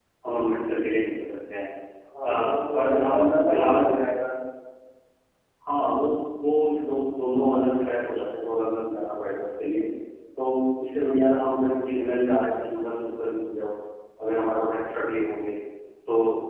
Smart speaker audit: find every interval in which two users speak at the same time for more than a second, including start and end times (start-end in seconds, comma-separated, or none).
2.2-3.9